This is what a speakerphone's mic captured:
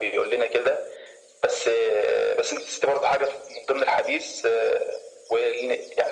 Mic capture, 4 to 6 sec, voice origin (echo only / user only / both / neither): echo only